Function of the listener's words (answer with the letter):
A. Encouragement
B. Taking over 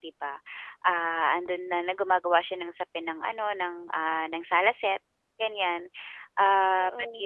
A